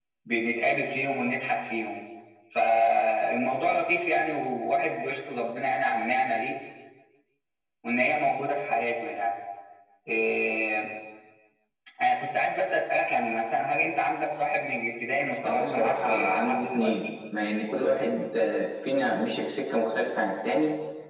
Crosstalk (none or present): present